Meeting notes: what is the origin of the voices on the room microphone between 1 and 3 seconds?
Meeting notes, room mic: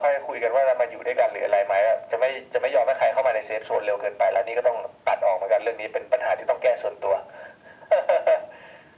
echo only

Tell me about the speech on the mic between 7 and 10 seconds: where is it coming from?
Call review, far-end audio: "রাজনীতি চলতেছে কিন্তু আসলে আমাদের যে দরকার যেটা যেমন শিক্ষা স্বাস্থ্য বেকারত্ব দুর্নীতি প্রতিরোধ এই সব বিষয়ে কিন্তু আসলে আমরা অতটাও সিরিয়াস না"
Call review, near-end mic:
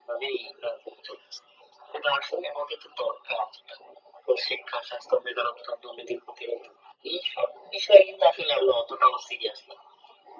echo only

